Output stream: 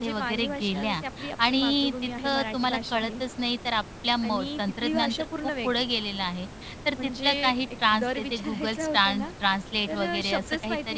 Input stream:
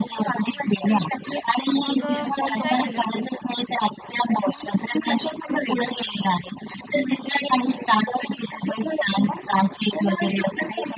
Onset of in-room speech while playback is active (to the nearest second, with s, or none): 2 s